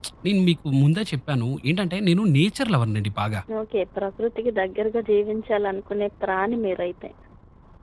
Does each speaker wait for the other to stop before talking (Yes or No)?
Yes